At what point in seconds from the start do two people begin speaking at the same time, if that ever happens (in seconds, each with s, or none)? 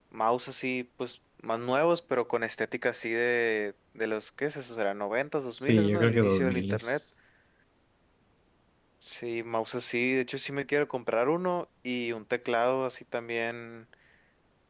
5.6 s